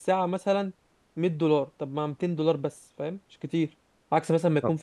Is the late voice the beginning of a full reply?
No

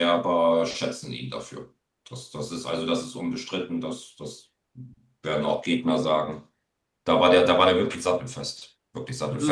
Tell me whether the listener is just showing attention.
Yes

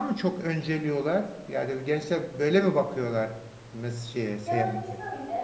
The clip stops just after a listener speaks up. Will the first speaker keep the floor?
No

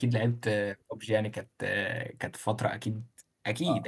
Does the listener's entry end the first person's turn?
Yes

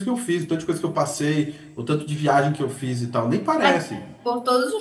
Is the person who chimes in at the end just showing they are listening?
No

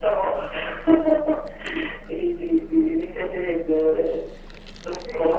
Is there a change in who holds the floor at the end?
Yes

